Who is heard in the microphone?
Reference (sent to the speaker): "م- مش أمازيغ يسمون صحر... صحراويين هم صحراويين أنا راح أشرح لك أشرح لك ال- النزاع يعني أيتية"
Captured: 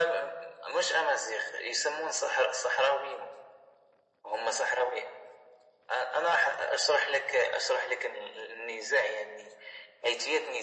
echo only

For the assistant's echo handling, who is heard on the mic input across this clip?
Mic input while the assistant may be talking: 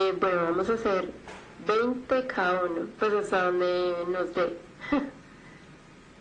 echo only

